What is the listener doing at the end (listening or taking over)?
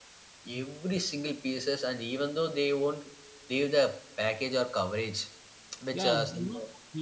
taking over